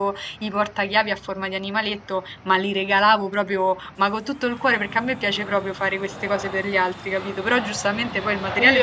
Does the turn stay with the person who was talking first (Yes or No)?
No